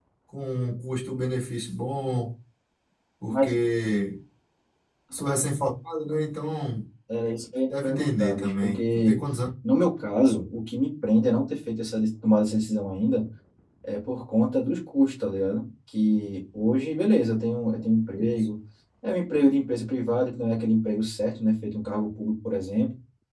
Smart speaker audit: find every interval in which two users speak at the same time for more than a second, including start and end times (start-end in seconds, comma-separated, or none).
7.8-9.2